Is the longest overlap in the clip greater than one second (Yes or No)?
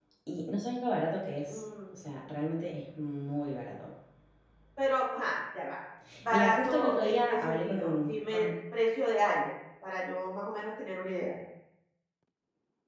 Yes